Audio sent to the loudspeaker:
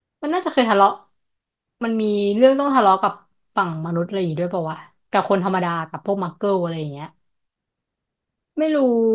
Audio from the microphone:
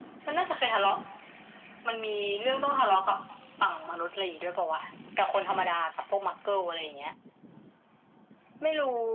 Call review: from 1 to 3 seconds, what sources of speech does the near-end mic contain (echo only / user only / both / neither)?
echo only